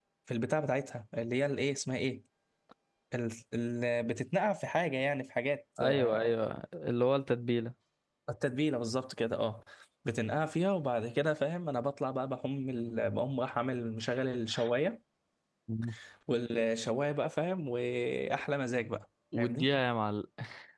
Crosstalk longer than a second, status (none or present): none